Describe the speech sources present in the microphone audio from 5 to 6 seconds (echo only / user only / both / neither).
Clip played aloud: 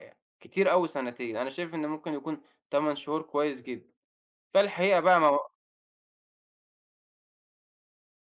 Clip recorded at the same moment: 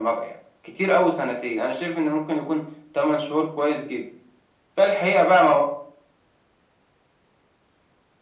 echo only